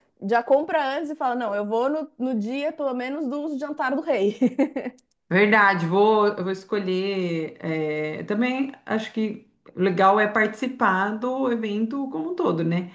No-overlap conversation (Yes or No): Yes